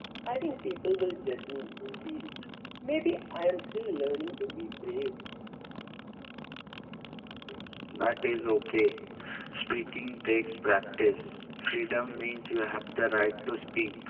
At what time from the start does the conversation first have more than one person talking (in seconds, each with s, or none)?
none